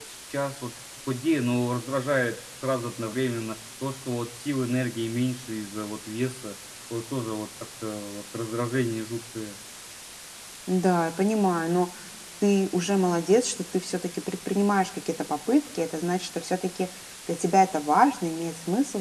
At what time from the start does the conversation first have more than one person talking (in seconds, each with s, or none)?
none